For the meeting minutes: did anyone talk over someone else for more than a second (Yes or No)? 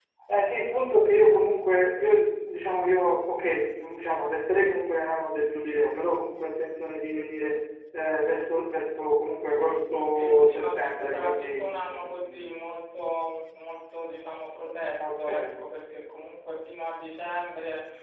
Yes